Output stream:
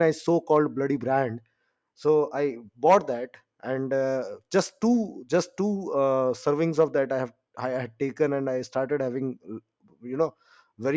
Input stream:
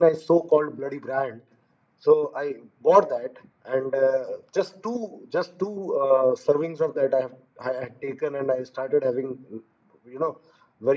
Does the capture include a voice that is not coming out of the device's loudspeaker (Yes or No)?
No